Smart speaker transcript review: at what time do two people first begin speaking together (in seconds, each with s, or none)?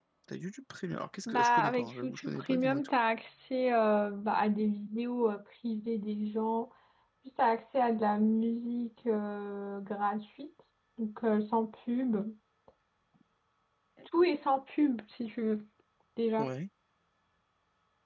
1.3 s